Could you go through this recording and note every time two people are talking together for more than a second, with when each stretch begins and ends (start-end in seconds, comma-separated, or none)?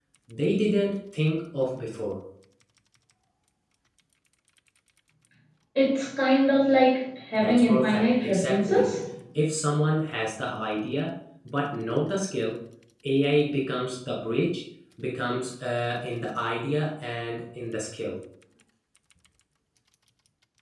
7.4-8.9